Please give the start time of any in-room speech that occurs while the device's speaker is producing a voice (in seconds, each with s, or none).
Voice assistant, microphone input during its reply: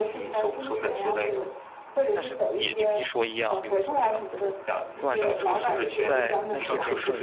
2.1 s